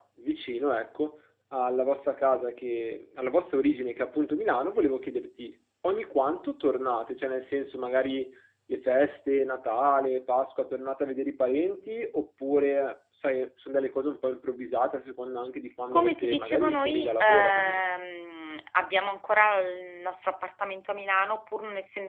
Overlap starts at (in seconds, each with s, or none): 15.9 s